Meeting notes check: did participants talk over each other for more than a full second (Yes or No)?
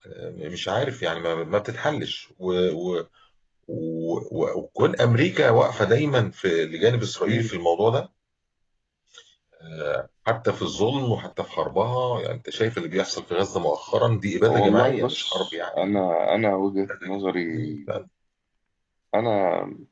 Yes